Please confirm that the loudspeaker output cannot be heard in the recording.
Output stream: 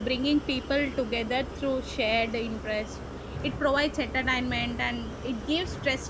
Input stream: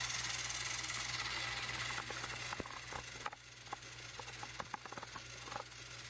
Yes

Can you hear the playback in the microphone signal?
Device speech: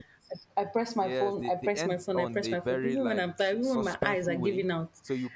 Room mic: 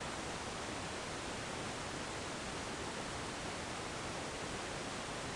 No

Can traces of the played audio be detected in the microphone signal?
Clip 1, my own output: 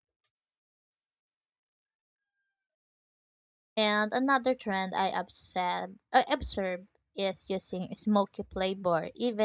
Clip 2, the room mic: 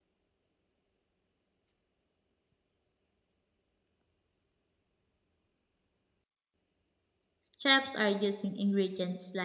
No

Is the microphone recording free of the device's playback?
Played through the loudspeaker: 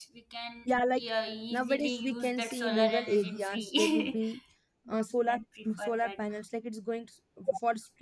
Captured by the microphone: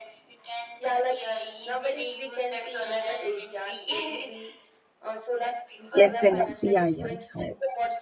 No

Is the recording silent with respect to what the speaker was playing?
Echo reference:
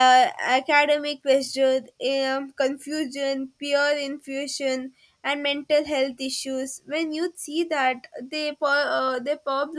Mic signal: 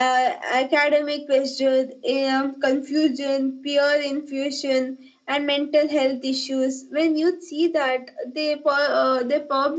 No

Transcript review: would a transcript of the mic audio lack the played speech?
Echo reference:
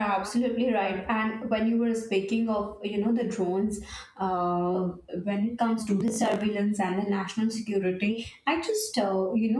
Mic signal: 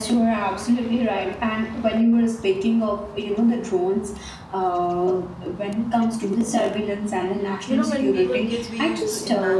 No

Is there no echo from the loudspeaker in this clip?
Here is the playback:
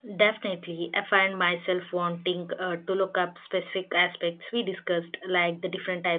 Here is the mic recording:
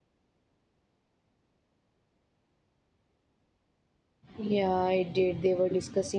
Yes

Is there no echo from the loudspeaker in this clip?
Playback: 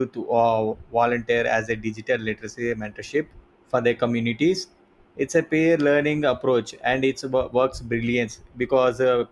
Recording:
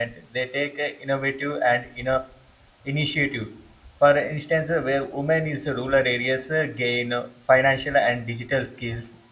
Yes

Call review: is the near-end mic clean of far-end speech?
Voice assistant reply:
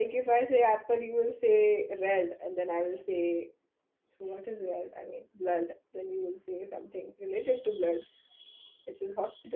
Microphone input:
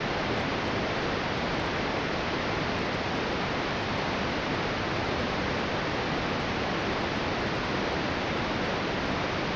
Yes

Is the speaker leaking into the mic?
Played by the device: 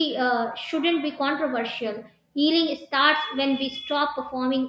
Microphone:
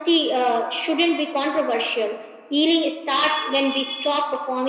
Yes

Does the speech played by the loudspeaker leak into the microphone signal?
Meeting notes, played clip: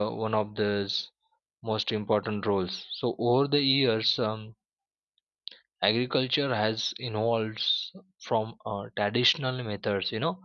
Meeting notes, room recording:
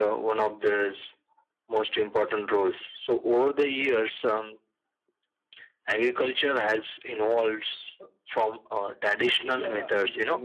Yes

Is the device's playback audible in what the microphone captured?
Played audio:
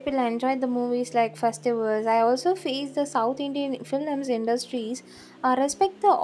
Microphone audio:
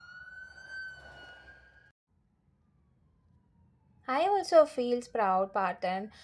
No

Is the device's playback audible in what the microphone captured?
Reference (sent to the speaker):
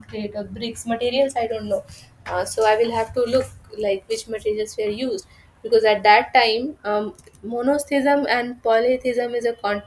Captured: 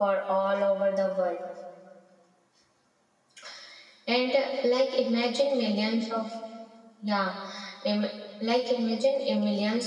No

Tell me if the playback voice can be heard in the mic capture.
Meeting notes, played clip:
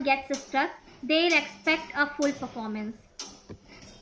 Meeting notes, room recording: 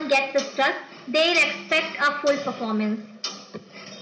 Yes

